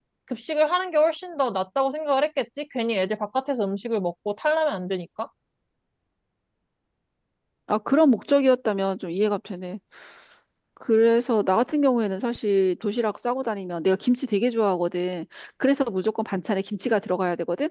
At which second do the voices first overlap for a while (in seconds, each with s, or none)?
none